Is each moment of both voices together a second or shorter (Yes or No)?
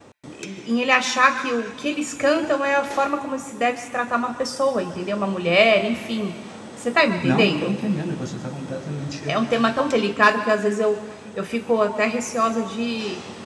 Yes